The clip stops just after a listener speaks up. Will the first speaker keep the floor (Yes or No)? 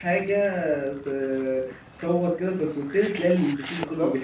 No